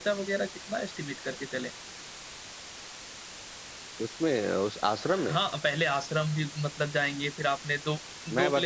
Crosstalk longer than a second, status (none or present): none